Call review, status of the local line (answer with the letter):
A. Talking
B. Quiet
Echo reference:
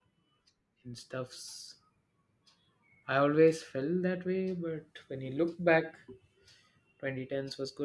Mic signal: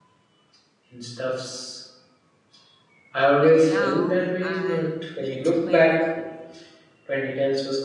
A